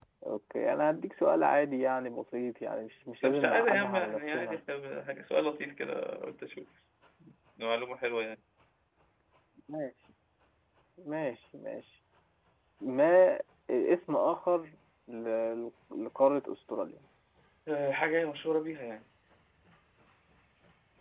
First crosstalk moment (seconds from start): 3.2 s

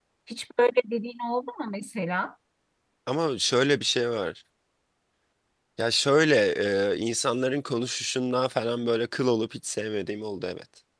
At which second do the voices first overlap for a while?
none

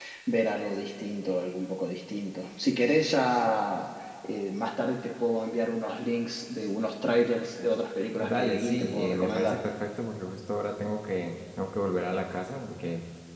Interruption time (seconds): 8.2 s

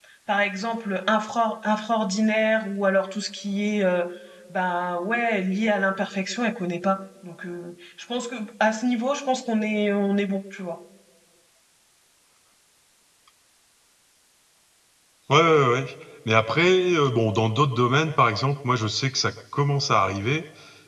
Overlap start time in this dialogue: none

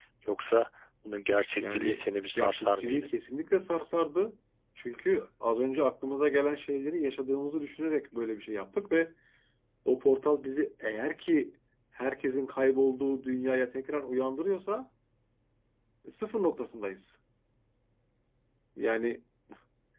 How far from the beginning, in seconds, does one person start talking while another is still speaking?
1.6 s

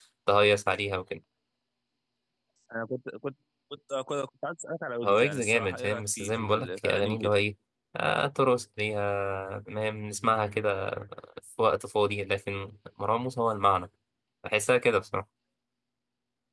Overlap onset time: 5.0 s

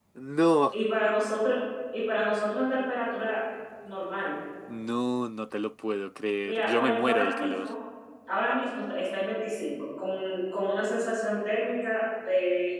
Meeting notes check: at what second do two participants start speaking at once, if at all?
6.4 s

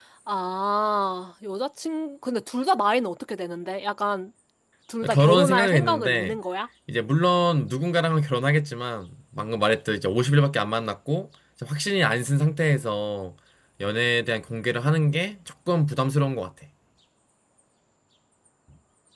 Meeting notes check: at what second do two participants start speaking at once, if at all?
5.1 s

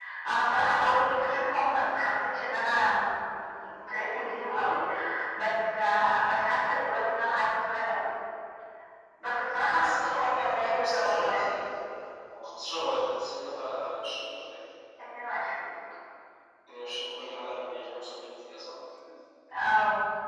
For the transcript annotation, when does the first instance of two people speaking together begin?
9.7 s

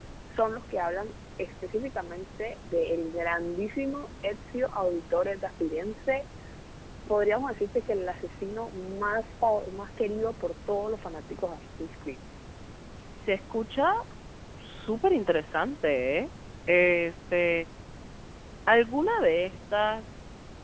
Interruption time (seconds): none

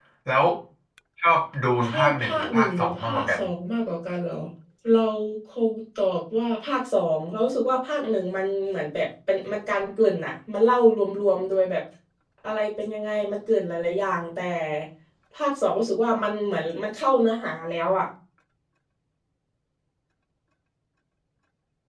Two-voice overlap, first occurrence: 1.8 s

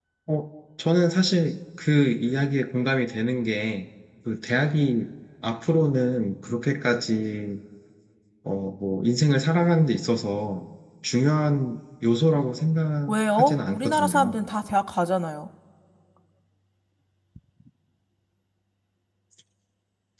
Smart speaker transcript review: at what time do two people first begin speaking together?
13.1 s

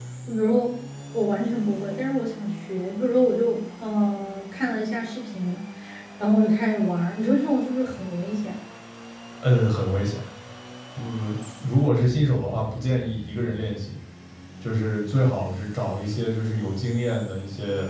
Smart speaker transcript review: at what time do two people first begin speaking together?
none

